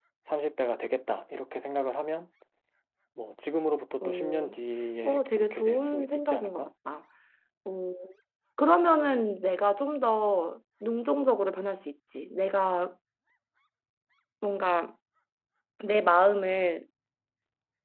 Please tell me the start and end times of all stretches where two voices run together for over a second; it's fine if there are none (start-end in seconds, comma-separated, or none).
5.0-6.7